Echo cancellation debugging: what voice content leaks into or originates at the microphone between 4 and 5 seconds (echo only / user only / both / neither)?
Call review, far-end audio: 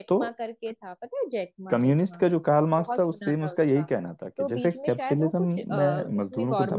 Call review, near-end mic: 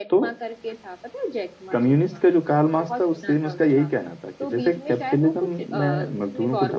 echo only